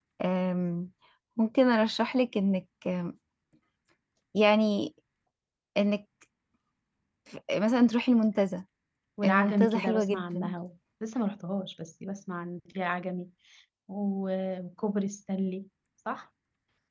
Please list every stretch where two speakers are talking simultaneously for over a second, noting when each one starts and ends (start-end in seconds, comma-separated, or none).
9.2-10.5